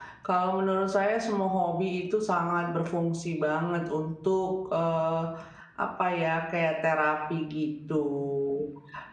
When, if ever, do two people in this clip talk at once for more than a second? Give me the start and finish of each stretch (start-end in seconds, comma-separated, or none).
none